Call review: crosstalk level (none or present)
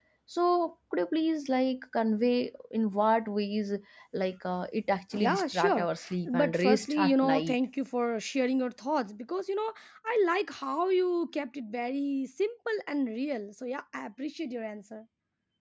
present